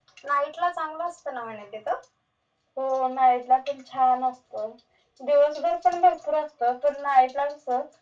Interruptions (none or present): none